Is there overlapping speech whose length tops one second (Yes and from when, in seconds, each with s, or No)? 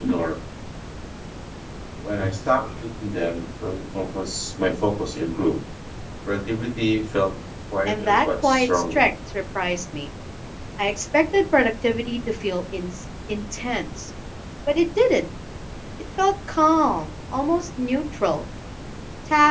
Yes, from 7.9 s